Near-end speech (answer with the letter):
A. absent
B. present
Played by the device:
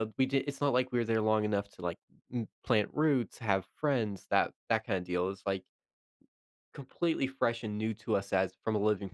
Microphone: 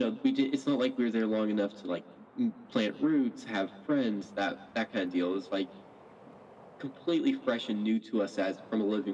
A